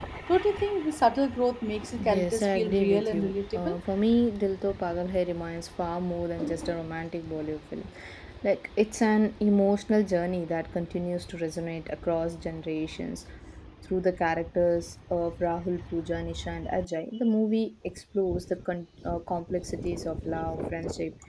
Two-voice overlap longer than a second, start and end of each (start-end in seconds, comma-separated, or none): 2.0-3.8